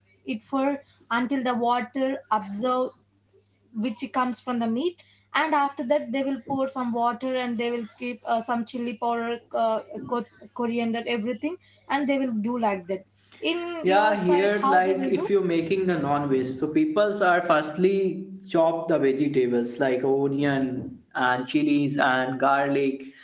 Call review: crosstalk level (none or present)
present